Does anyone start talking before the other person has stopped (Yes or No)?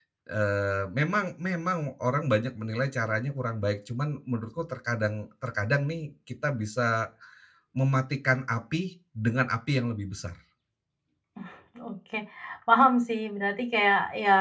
No